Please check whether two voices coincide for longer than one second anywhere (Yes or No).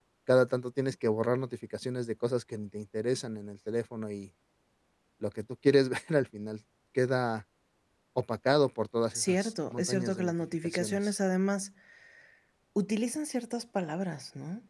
Yes